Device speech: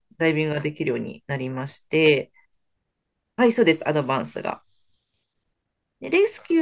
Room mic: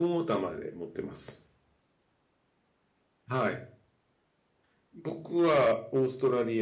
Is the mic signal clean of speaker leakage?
Yes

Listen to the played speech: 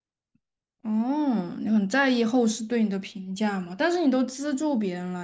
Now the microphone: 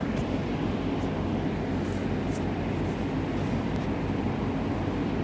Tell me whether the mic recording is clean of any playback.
Yes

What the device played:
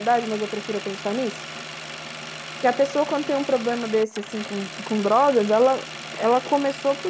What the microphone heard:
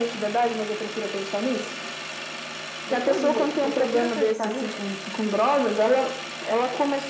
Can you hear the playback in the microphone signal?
Yes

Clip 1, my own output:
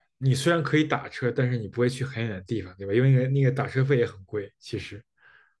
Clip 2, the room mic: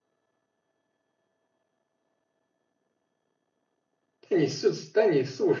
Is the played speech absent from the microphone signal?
Yes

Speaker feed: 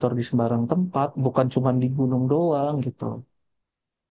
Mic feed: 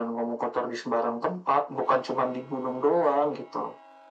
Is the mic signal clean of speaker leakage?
No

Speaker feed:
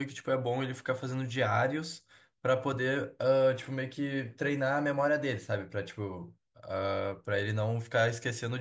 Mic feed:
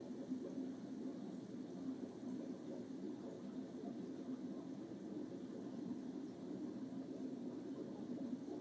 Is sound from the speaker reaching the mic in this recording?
No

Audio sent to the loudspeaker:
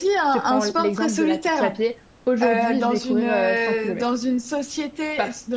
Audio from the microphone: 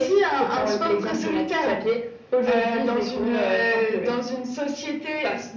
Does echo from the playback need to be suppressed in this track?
Yes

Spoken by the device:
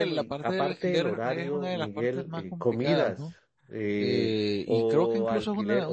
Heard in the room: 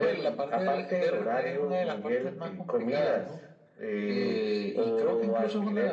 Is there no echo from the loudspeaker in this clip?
No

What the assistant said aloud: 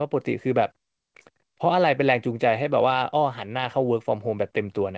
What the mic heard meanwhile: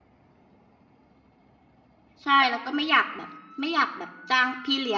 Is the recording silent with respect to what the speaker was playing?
Yes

